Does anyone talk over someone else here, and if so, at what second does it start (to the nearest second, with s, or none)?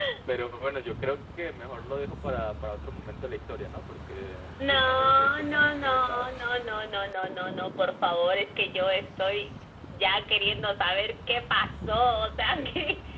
5 s